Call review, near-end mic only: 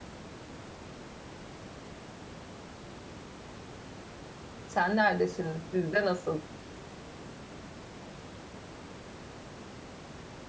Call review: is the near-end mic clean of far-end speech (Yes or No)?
Yes